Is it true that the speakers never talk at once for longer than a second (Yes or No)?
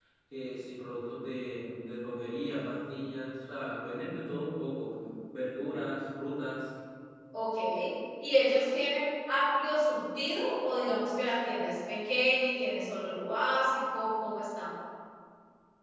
Yes